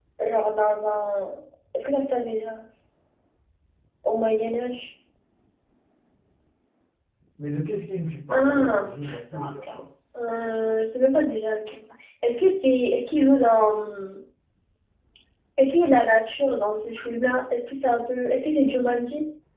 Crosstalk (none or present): present